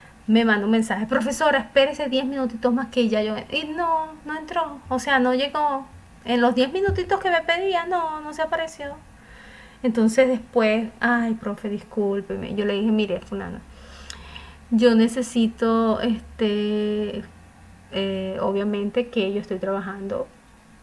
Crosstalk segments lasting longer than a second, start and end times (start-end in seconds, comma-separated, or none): none